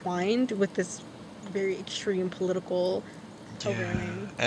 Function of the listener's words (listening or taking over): taking over